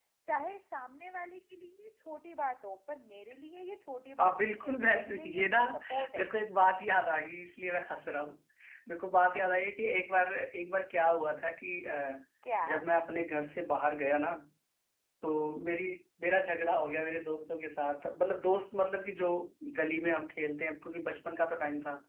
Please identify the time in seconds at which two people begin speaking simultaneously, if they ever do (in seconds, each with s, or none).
4.2 s